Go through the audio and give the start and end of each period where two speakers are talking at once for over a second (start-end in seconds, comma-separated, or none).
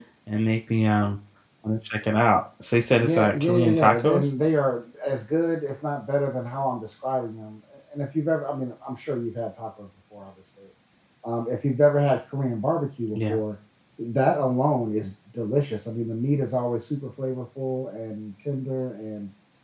3.0-4.3